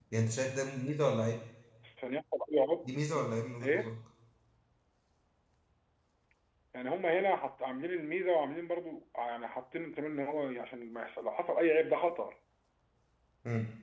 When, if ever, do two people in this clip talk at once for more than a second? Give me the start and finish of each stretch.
none

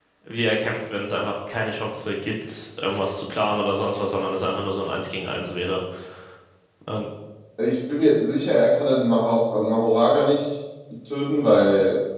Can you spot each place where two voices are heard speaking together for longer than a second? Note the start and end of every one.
none

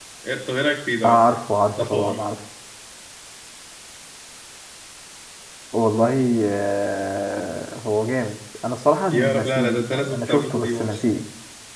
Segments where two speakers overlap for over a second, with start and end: 9.1-11.0

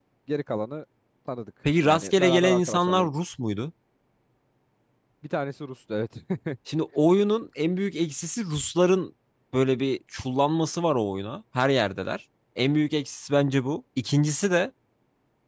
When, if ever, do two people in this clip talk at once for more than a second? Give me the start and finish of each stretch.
1.8-3.2

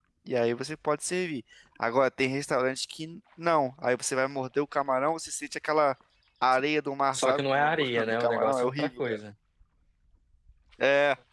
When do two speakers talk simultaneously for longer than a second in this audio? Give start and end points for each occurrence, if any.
7.1-9.2

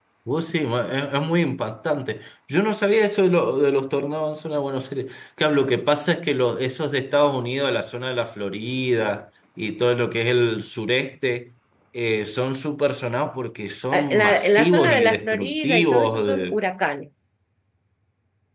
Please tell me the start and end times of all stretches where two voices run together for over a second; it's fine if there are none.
13.9-16.6

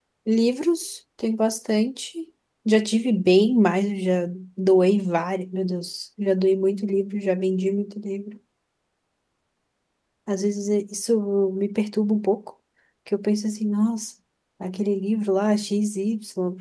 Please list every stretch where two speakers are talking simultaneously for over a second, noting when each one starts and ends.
none

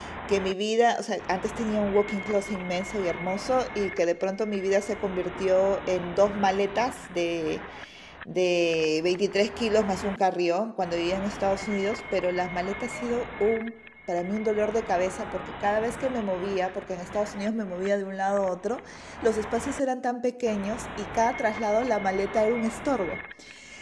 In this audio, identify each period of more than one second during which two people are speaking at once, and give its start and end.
none

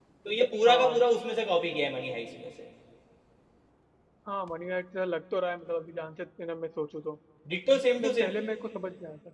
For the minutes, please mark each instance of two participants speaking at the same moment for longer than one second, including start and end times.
none

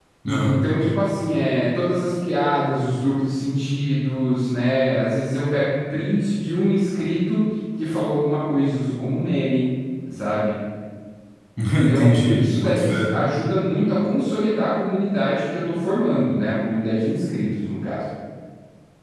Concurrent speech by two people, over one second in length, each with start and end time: 11.9-13.2

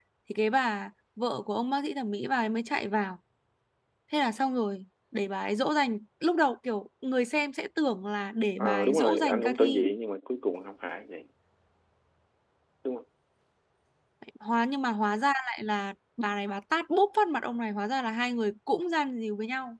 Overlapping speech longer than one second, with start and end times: 8.6-9.9

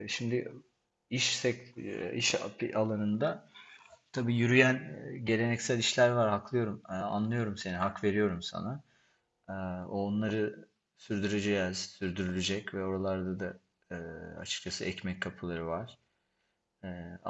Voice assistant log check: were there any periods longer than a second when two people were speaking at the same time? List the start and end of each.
none

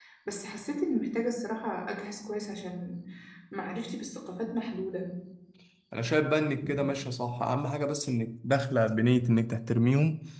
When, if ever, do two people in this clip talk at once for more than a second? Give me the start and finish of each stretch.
none

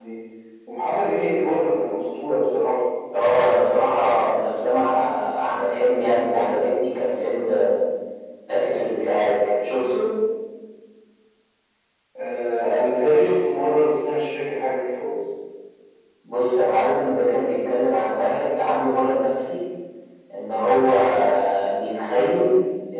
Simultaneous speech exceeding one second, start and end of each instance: none

